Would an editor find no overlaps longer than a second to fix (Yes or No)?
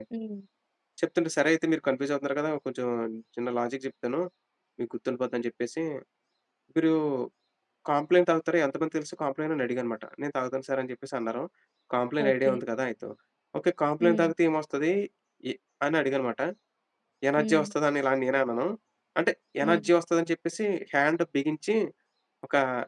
Yes